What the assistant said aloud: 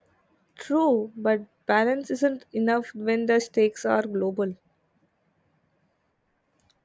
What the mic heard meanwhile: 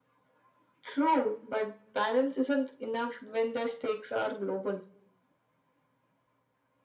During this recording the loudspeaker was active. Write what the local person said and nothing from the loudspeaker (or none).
none